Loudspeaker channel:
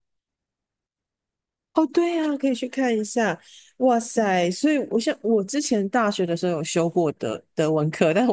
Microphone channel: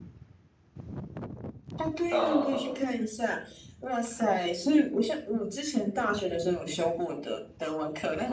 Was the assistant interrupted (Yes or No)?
Yes